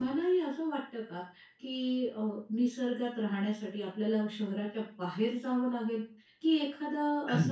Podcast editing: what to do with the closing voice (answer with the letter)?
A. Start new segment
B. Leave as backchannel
B